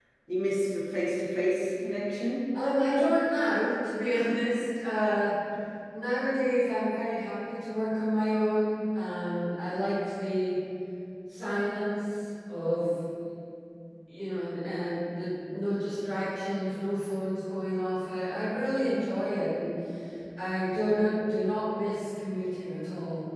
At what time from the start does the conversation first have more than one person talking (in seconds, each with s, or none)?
none